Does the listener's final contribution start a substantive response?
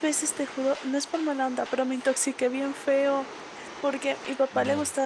No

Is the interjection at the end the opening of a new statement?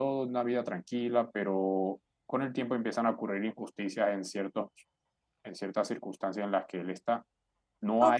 Yes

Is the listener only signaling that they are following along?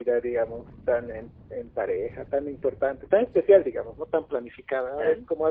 Yes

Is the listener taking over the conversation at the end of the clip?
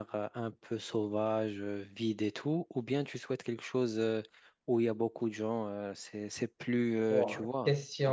Yes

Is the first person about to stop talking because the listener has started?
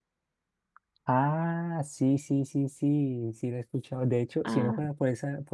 No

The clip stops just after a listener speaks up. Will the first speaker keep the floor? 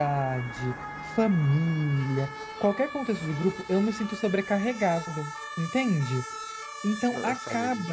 Yes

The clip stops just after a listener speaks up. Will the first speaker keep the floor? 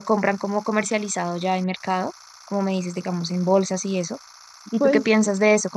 Yes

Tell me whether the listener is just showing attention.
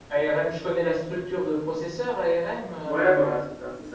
No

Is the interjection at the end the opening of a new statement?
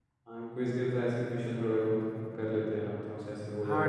Yes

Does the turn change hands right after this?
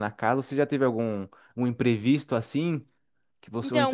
Yes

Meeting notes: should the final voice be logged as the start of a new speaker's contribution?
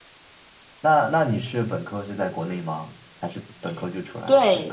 Yes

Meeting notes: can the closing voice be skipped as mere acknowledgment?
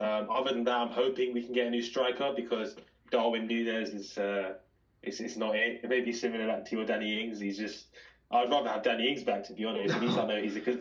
Yes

